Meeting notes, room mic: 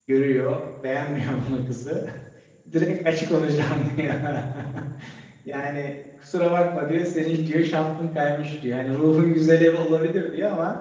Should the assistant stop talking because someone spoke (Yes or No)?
Yes